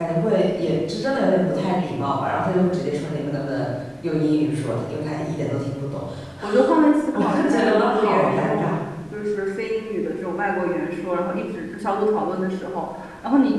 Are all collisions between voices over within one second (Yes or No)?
No